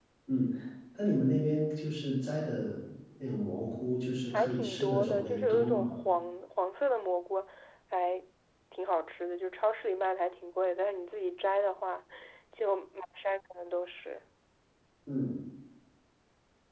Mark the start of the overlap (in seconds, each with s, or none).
4.3 s